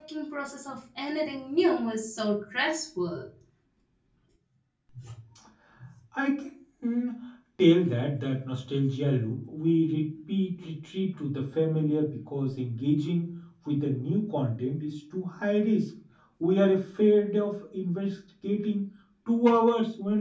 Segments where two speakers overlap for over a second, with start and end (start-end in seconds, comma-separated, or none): none